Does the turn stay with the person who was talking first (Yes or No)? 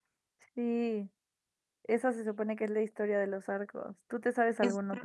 No